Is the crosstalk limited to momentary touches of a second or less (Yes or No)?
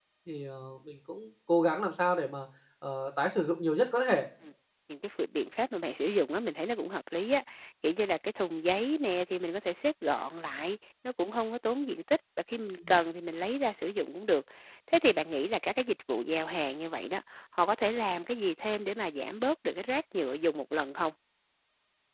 Yes